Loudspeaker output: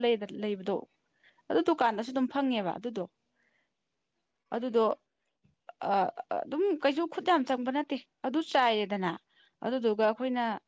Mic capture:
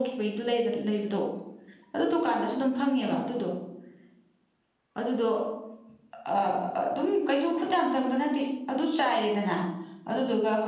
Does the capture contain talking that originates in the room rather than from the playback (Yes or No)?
No